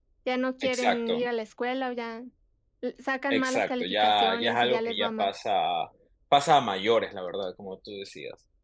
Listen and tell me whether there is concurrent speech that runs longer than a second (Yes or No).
Yes